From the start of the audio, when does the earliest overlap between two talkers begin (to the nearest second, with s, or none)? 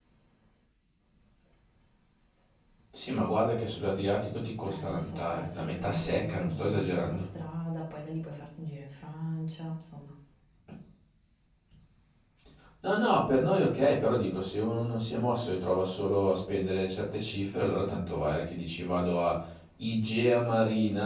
5 s